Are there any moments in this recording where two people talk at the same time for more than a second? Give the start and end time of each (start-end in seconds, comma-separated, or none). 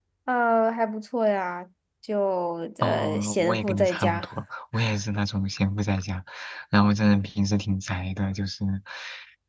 2.8-4.3